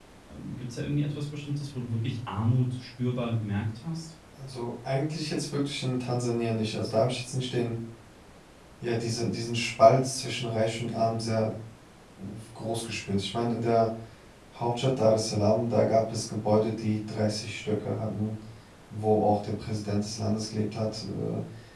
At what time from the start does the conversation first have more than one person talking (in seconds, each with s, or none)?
none